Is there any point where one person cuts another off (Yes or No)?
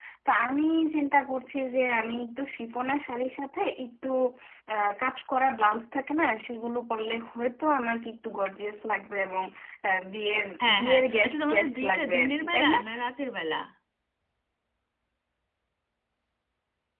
Yes